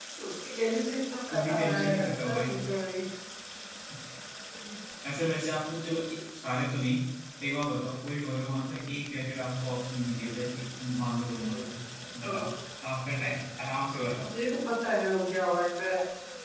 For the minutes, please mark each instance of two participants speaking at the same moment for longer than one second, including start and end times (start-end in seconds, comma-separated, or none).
1.3-2.5